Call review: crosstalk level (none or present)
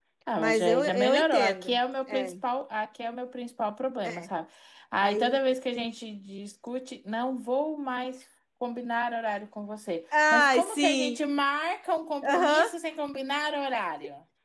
present